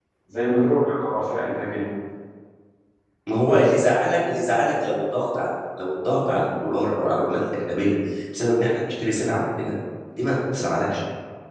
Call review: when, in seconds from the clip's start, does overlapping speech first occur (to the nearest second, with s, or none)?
none